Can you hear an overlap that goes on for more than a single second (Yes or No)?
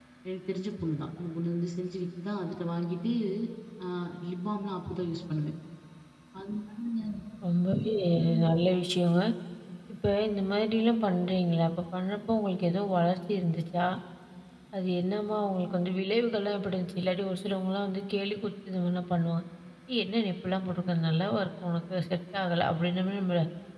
No